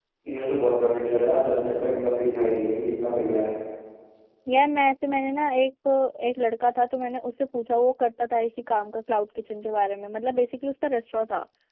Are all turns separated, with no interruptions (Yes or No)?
Yes